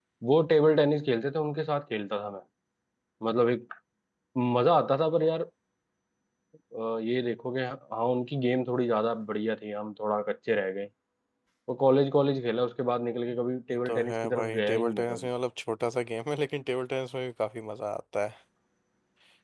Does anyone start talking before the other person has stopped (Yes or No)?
Yes